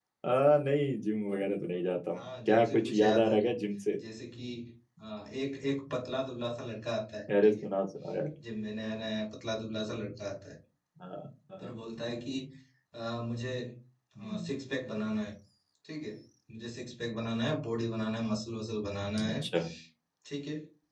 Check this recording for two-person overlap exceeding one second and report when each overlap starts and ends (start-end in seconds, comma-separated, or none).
2.1-3.5